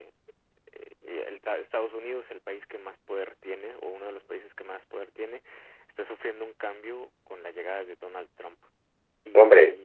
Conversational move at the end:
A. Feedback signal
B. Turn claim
B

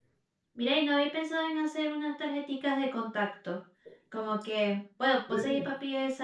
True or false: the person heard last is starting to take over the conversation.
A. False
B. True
A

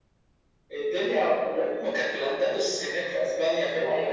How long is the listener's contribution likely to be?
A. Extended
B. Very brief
A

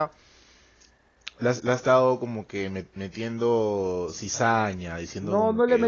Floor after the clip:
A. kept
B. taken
B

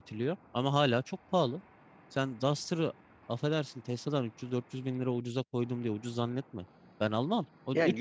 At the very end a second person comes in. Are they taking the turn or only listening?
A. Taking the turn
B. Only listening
A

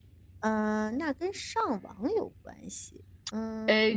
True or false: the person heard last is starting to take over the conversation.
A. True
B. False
A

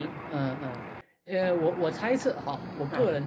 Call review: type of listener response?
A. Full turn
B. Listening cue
B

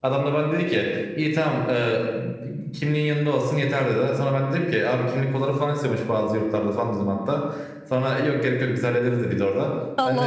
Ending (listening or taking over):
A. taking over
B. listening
B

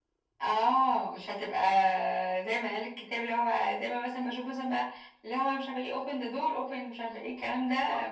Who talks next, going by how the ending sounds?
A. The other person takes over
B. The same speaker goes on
A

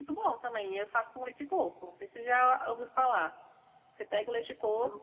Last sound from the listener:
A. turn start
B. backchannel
B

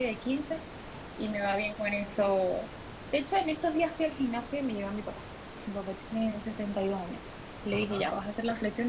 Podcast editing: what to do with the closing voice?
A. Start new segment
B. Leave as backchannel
B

